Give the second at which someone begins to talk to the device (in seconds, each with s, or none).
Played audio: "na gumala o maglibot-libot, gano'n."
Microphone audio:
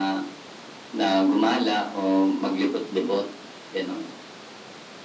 none